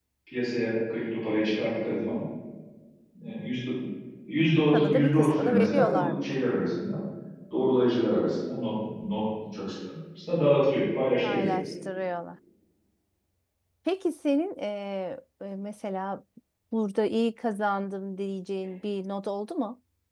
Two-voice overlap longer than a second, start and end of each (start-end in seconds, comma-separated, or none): 4.7-6.2